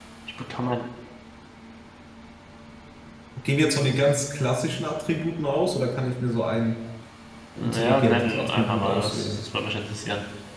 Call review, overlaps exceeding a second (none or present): present